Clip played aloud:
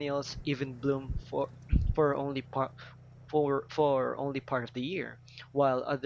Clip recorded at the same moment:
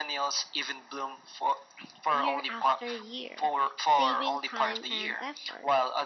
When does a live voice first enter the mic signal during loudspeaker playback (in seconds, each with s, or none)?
2.1 s